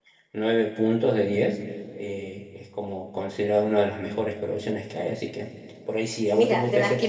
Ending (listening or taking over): taking over